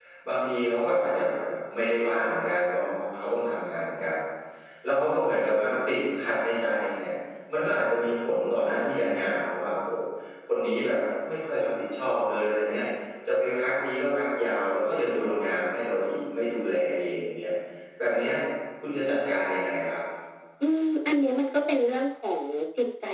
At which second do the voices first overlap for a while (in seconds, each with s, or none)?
none